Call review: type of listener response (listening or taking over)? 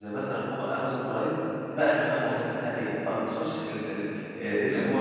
listening